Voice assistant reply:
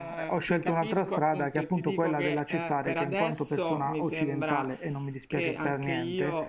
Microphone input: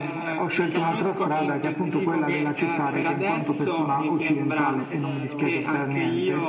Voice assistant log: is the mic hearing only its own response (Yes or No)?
No